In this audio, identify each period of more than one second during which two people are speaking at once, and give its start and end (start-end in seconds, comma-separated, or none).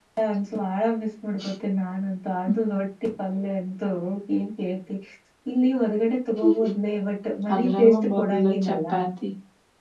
7.5-8.8